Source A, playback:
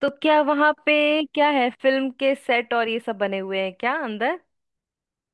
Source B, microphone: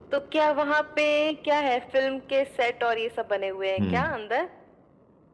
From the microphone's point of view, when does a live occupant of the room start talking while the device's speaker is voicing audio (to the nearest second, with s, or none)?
4 s